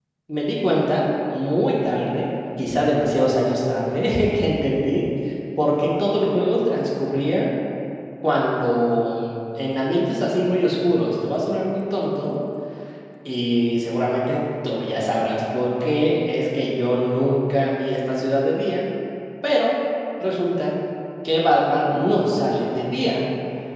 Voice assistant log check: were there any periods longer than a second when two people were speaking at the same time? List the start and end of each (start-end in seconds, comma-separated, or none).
none